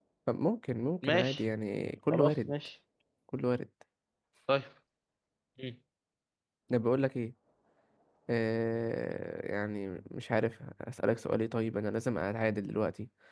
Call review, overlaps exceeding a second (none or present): none